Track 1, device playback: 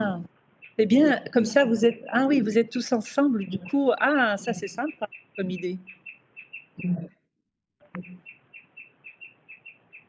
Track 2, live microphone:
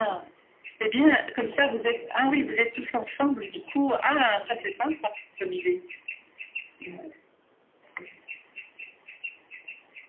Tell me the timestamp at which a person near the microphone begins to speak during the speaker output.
none

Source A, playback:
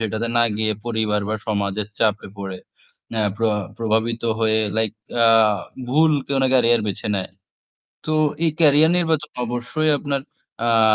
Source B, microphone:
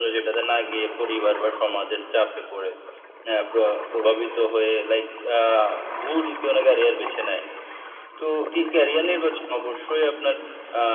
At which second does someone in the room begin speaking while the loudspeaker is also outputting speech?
none

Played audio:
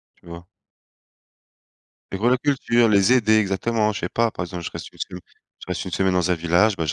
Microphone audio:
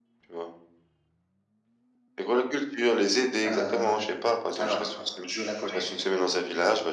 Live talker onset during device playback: 3.4 s

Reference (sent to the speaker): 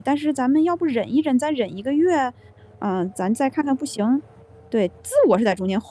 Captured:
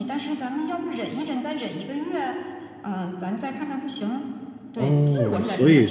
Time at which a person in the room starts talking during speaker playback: 4.8 s

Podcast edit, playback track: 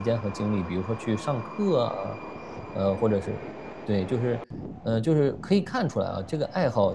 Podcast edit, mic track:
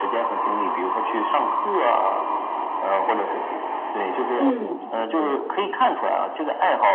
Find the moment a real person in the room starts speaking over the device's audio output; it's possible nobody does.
4.3 s

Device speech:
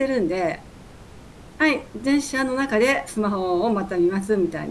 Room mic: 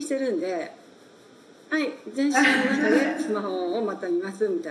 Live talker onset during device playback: 2.3 s

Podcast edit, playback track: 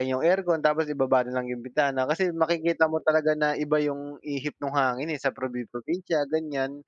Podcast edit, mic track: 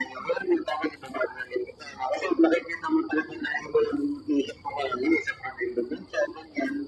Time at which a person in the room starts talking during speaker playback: none

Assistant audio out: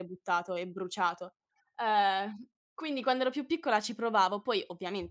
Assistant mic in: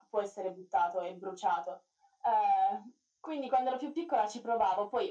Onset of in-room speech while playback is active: none

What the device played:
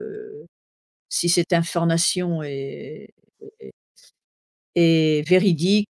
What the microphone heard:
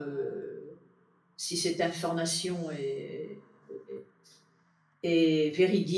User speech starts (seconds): none

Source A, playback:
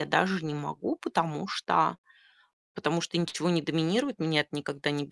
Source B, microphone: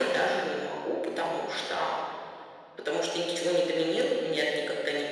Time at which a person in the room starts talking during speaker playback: none

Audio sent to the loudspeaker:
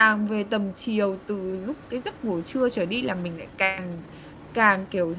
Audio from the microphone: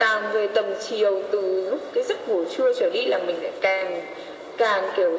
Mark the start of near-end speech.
none

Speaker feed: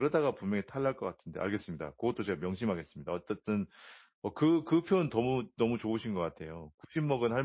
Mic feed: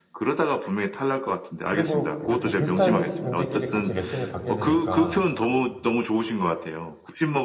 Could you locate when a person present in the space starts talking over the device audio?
1.6 s

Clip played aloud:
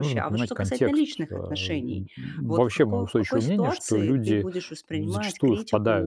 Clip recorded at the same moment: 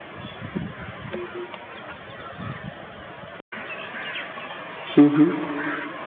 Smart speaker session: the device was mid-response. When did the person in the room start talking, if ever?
5.0 s

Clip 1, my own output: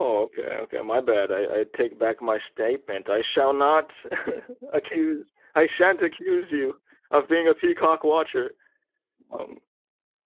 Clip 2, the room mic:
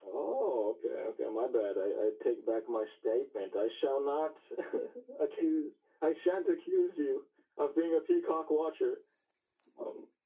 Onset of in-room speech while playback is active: none

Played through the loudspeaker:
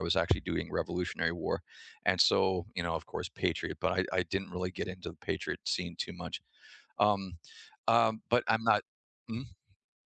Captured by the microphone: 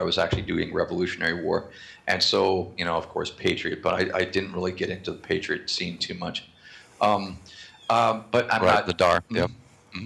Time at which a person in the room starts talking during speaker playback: 8.6 s

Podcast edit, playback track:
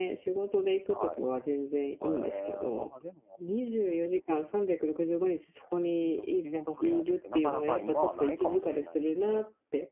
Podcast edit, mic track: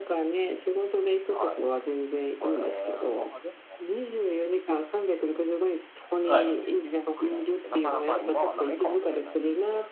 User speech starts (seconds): 6.2 s

